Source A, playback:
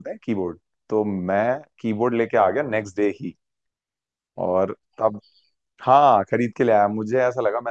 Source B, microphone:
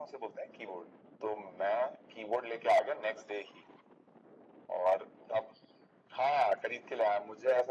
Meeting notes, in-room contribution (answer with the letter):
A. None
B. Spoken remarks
A